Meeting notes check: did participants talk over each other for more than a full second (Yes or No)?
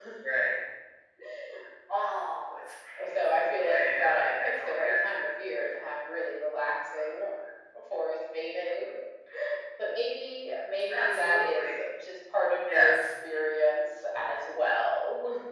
Yes